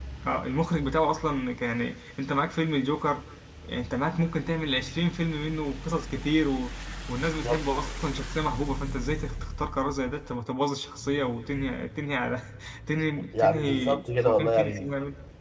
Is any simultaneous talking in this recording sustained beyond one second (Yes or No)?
Yes